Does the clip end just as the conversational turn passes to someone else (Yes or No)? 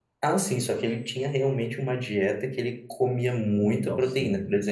No